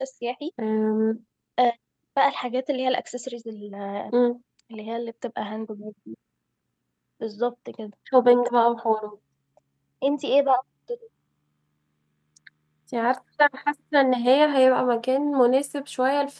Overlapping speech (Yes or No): No